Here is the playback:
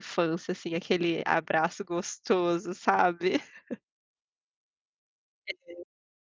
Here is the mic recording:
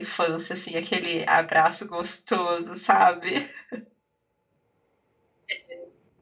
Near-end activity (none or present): none